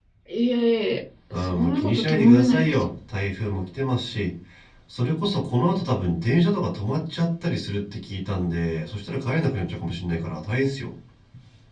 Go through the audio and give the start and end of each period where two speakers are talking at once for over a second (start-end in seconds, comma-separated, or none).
1.5-2.7